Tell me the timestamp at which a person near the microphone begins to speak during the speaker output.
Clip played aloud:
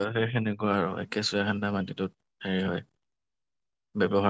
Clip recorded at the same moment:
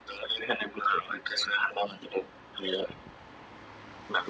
none

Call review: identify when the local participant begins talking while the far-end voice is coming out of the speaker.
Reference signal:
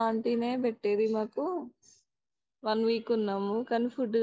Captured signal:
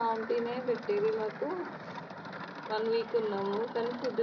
none

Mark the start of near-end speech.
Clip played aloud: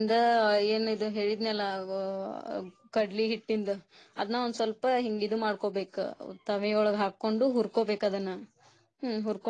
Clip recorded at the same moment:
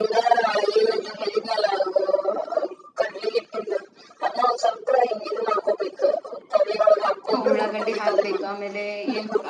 7.3 s

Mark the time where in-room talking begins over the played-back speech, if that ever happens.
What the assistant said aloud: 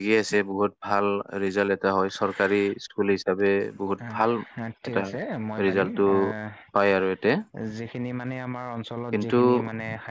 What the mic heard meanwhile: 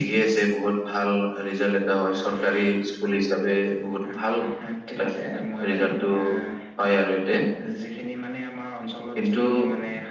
none

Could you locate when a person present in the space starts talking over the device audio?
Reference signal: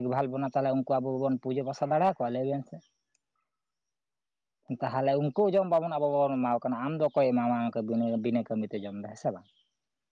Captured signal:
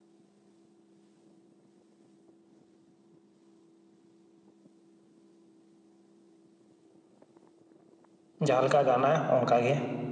8.5 s

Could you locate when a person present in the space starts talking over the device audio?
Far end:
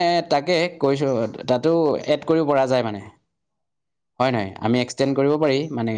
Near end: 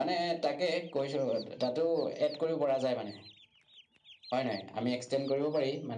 none

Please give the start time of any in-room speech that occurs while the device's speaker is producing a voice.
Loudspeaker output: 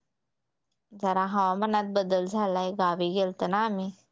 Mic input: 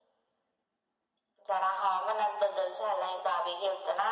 none

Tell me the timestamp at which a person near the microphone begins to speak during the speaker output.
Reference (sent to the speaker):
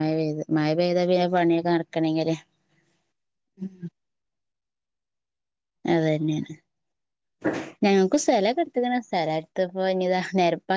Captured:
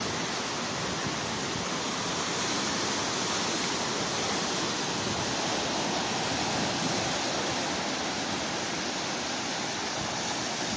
none

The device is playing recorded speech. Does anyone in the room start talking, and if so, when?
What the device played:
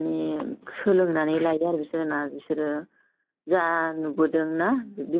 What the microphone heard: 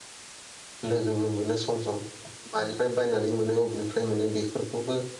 0.9 s

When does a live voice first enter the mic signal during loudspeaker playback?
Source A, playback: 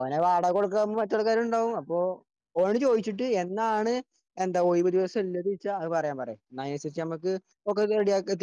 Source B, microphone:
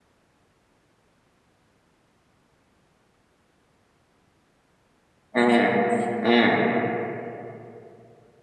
5.4 s

